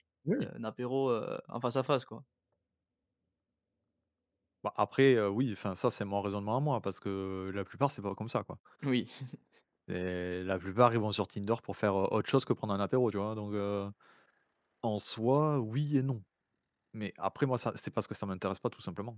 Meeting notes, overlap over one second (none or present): none